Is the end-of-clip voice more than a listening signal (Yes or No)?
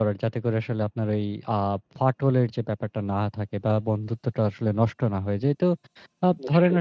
No